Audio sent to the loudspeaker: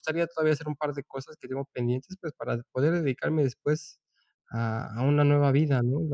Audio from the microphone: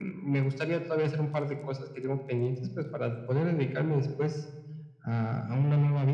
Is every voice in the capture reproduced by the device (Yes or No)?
Yes